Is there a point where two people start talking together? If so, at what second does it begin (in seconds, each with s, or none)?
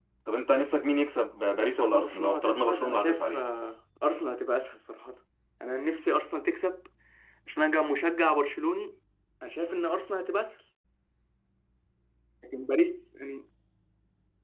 1.6 s